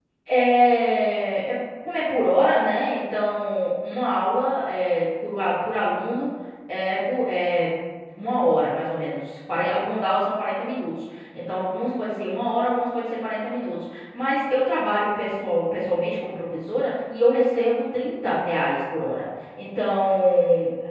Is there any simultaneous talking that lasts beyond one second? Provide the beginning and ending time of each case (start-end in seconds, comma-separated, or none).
none